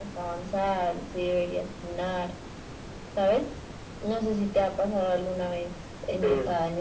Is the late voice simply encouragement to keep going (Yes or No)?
Yes